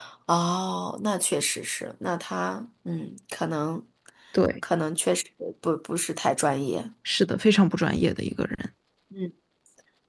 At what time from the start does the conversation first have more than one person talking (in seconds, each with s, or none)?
none